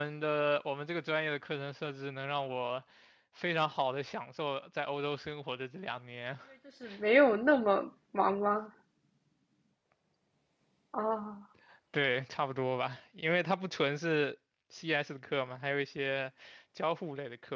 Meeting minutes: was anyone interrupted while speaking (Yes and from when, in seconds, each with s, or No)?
No